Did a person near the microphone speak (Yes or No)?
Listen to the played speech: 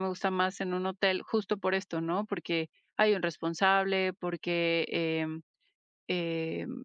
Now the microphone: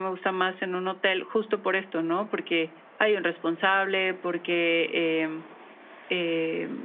No